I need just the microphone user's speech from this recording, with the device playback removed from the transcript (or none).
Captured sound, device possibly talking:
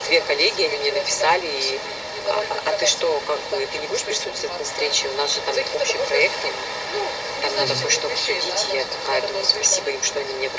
Там